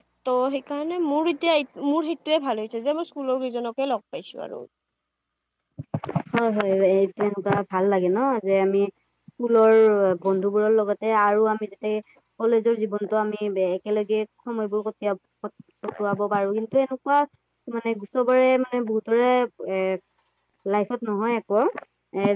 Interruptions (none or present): none